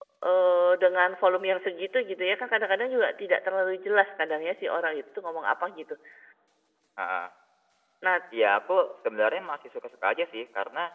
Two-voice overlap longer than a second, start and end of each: none

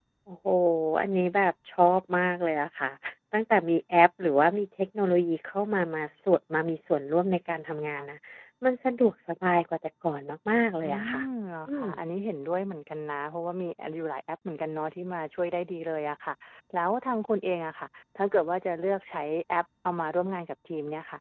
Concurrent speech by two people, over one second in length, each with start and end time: none

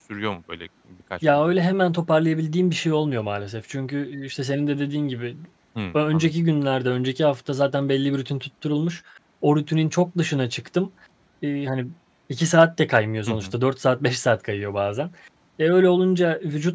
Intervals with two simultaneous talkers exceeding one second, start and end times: none

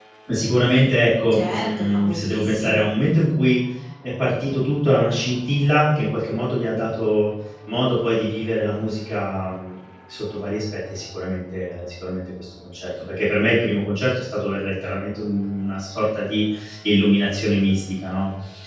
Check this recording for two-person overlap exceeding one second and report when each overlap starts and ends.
1.3-2.8

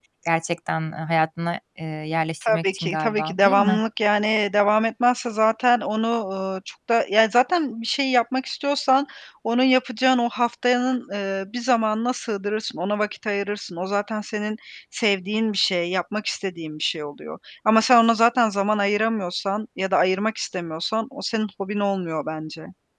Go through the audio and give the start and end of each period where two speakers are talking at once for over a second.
2.4-3.8

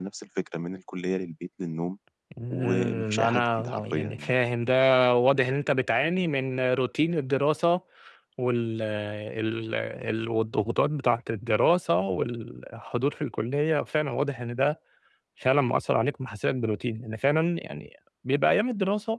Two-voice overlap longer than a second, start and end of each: 2.5-4.3

